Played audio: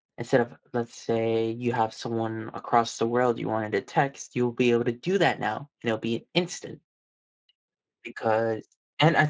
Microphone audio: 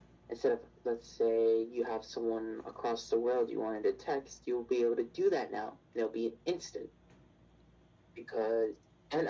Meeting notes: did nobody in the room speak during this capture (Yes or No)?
Yes